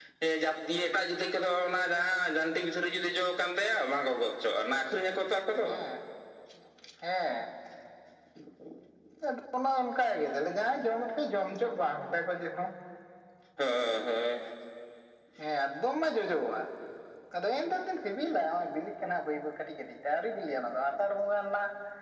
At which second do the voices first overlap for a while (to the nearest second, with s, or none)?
none